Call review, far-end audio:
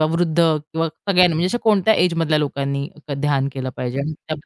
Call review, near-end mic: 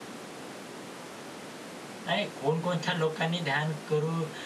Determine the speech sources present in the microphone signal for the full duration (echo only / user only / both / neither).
user only